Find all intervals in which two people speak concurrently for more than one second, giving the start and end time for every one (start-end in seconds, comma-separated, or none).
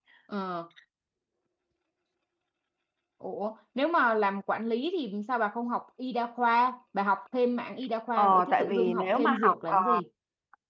8.2-9.8